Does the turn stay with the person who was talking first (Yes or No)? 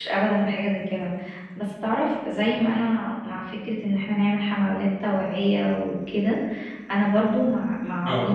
Yes